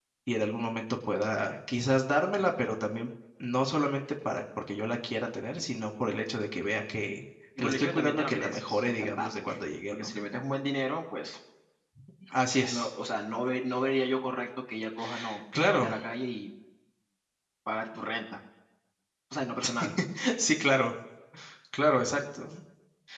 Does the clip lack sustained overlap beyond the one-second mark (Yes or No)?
No